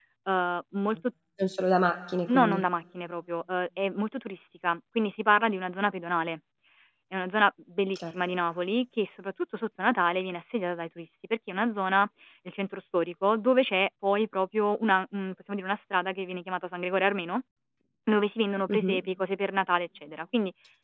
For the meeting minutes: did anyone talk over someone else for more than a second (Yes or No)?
No